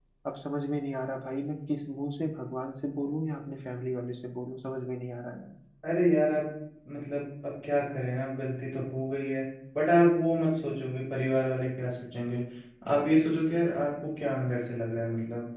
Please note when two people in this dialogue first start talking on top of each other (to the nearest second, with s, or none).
none